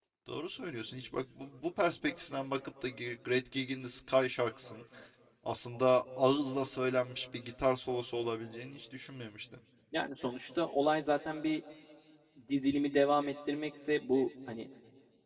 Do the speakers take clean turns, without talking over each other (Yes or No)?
Yes